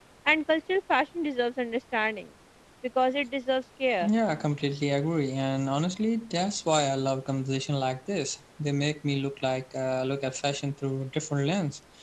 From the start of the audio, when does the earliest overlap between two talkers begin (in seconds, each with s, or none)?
none